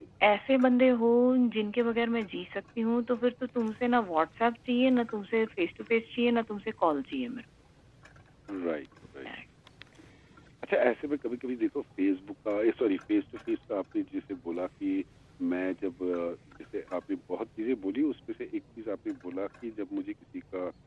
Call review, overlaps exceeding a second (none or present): none